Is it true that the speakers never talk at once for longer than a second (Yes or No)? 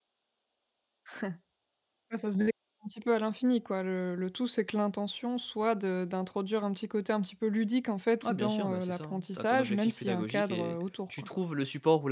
No